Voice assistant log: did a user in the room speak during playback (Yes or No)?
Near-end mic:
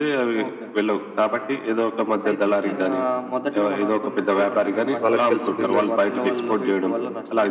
Yes